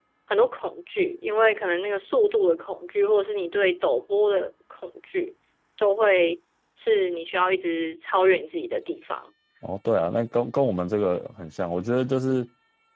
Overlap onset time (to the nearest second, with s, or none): none